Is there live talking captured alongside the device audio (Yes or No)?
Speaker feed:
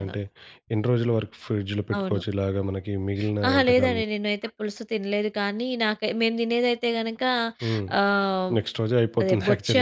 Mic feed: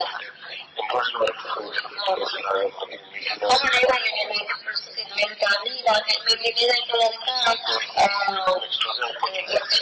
No